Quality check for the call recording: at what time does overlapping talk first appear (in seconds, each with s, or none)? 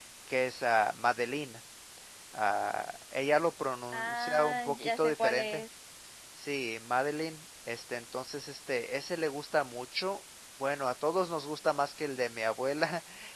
3.9 s